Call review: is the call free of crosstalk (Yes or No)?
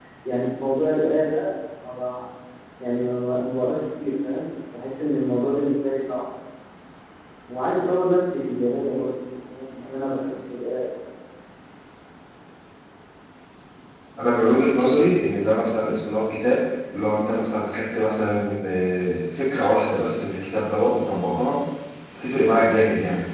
Yes